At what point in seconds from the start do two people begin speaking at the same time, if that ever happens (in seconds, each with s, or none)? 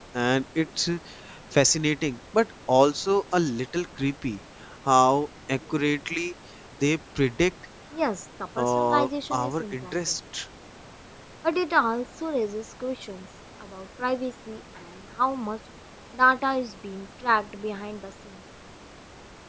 8.6 s